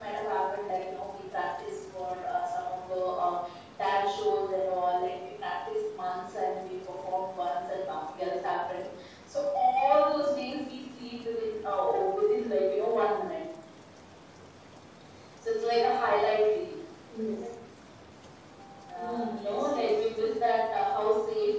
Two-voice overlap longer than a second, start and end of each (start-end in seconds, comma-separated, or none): 18.9-20.2